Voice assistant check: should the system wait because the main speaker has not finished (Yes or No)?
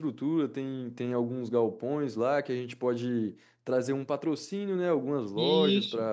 Yes